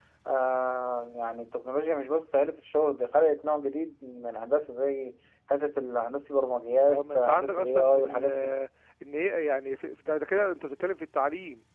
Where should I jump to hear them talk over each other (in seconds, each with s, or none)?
6.9 s